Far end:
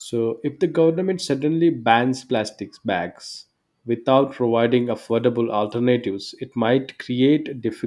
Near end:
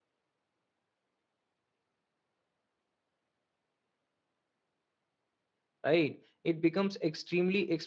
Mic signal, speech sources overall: user only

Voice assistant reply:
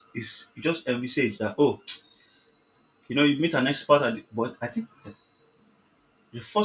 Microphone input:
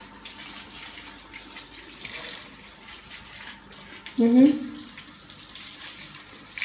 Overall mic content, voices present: user only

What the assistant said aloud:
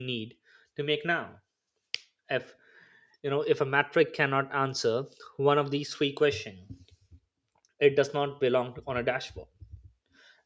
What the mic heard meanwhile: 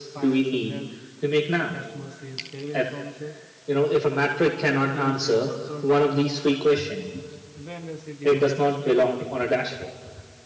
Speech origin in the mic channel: both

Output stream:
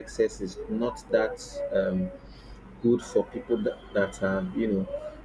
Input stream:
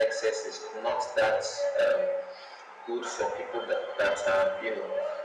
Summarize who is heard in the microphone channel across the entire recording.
echo only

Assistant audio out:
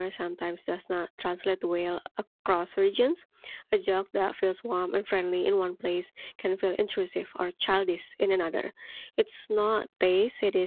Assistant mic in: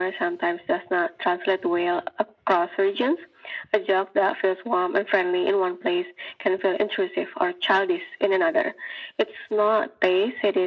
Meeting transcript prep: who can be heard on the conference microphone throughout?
echo only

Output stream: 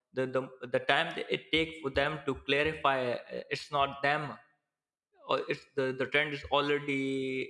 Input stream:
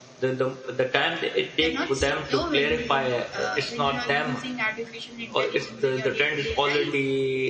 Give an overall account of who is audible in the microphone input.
both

